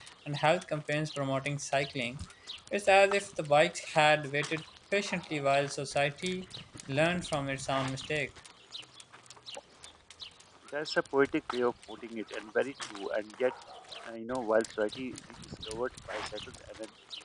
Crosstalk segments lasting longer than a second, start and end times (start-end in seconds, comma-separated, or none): none